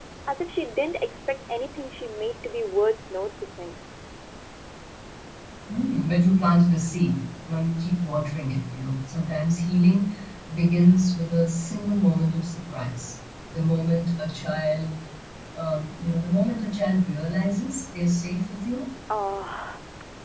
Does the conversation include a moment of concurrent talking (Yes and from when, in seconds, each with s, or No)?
No